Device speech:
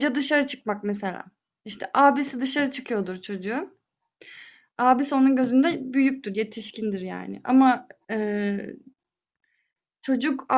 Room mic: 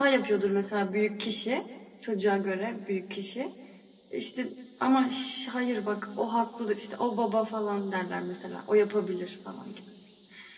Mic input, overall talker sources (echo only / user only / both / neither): user only